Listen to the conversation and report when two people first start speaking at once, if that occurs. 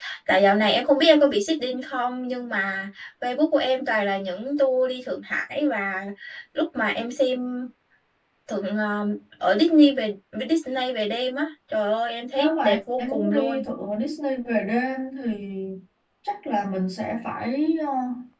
12 s

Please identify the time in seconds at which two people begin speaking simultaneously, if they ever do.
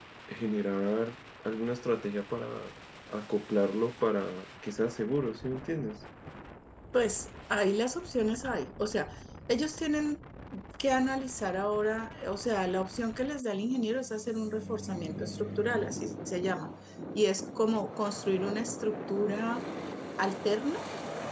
none

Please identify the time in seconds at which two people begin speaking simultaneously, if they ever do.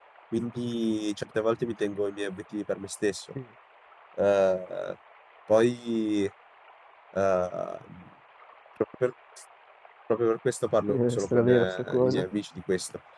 11 s

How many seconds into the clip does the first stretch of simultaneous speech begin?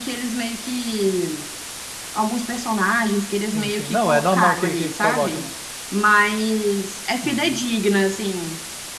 4 s

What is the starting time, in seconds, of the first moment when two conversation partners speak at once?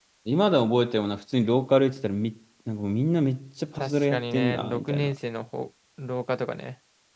4 s

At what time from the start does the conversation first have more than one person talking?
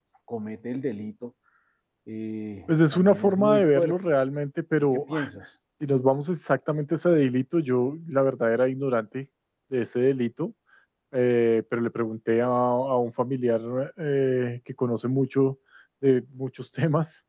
3 s

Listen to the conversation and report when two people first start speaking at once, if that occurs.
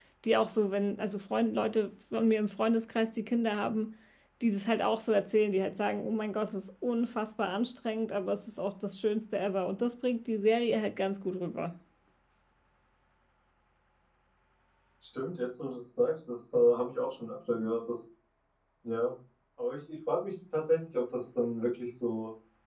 none

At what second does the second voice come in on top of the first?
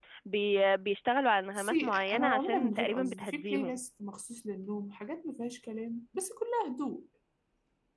2 s

